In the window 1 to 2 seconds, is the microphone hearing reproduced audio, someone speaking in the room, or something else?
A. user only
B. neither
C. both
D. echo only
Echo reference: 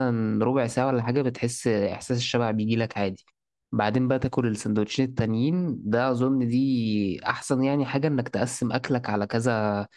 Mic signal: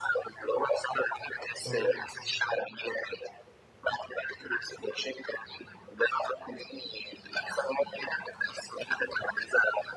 C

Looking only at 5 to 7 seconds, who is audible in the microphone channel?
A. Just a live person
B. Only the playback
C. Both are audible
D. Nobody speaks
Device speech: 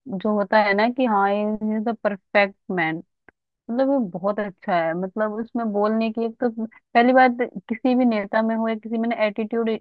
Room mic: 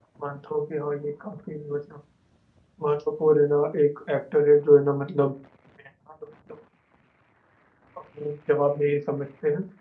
A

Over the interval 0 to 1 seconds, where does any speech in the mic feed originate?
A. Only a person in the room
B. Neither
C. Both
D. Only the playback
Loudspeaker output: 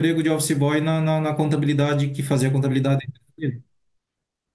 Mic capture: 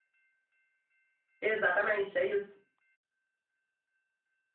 B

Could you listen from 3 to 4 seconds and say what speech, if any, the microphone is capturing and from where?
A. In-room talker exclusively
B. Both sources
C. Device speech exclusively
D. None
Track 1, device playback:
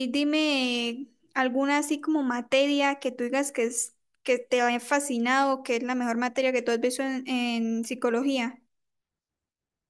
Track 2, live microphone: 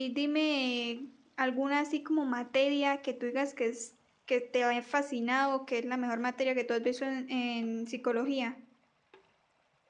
C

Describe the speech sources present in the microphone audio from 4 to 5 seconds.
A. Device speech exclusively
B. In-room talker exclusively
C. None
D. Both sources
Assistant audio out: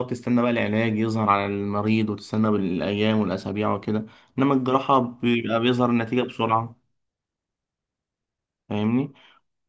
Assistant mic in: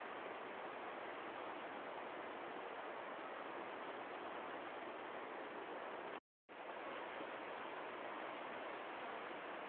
C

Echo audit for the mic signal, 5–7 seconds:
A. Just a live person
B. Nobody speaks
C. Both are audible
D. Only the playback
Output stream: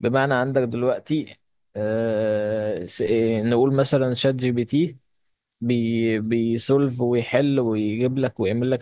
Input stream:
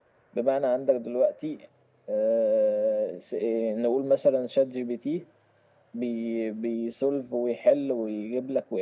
D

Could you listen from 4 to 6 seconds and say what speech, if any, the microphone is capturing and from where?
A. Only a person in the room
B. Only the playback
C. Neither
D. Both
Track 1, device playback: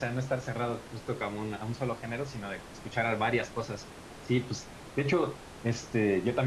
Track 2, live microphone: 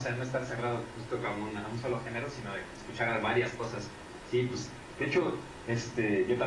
B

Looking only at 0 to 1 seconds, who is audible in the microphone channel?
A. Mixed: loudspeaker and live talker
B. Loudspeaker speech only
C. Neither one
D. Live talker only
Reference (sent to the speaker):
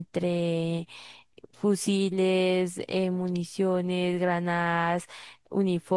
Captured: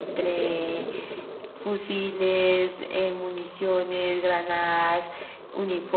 B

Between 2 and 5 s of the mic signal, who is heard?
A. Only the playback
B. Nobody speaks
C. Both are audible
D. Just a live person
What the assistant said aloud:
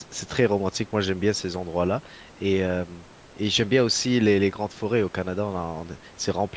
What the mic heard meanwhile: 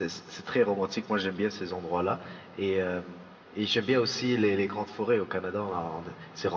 A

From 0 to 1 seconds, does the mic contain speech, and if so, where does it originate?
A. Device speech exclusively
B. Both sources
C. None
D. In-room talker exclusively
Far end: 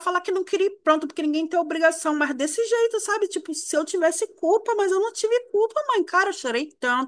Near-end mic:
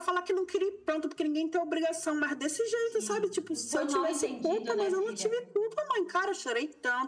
A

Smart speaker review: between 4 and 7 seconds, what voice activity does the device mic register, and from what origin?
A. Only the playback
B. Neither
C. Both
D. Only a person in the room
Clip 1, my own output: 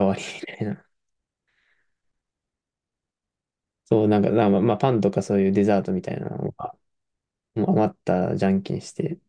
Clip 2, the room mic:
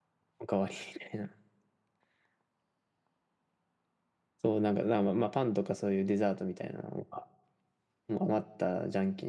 A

